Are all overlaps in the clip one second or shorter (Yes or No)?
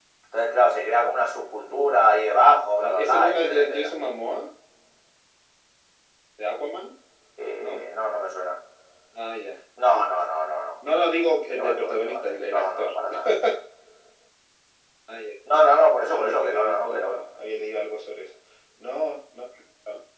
No